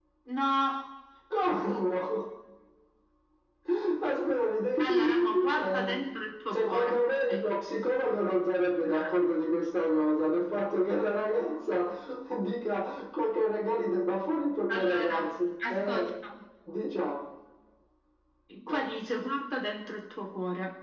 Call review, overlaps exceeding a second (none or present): present